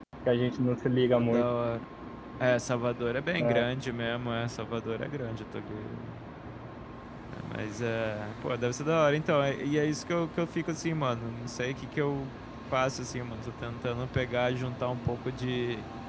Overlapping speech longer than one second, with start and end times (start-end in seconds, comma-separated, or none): none